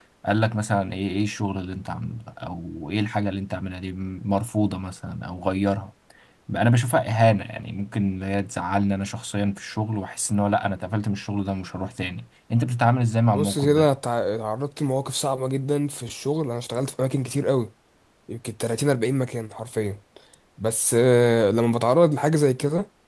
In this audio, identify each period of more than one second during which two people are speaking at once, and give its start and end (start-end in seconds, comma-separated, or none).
none